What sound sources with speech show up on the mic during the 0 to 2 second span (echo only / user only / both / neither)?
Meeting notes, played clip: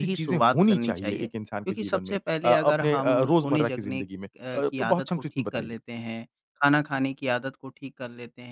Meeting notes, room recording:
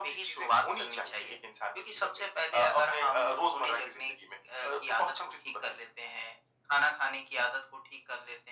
echo only